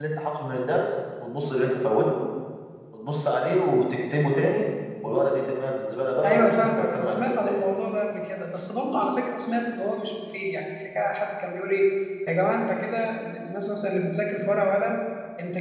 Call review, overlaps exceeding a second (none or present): present